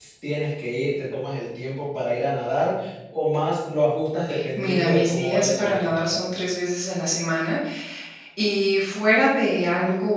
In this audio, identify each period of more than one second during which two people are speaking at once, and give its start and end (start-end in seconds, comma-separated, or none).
4.6-6.0